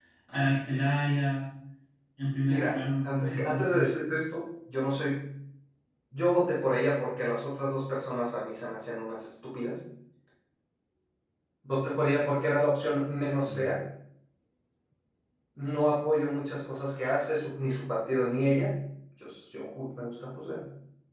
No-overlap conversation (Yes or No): No